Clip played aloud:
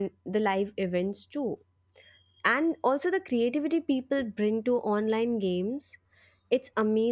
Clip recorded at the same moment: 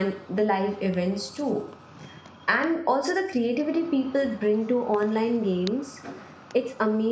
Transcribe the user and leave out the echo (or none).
none